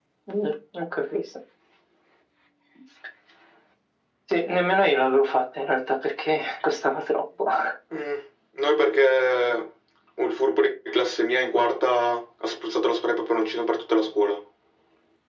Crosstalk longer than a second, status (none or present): none